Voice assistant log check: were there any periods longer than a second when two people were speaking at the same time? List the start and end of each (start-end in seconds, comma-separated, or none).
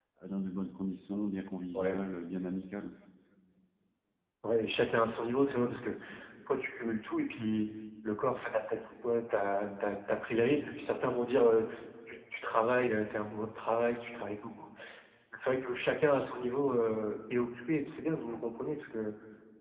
none